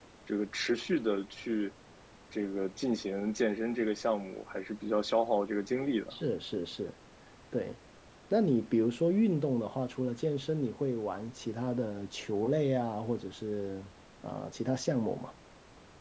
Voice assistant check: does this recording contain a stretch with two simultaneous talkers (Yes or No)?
No